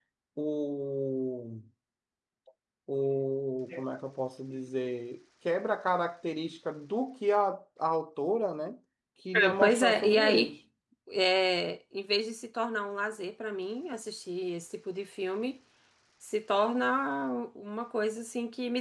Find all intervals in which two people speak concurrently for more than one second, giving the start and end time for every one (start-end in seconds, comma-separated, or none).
9.3-10.5